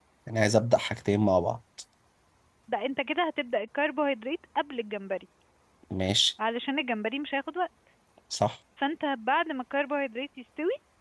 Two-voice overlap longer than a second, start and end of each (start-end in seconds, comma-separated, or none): none